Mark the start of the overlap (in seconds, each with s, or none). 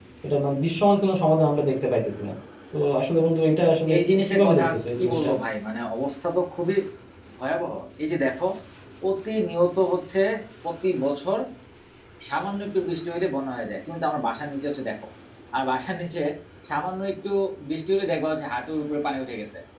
3.9 s